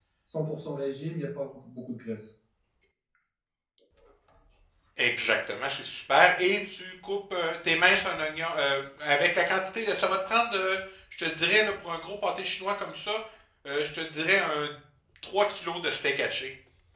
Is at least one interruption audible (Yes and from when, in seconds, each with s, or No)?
No